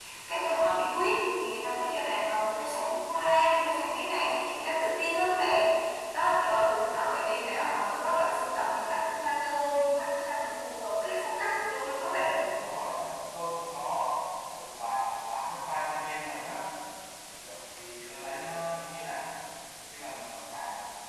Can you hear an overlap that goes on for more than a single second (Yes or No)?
No